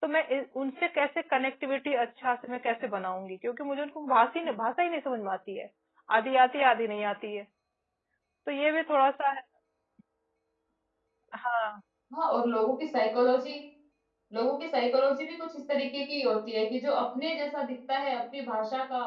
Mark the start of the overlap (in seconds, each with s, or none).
none